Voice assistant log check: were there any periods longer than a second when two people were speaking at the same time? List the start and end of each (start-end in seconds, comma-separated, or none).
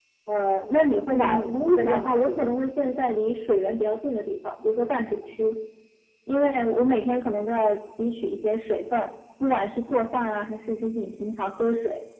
1.1-2.5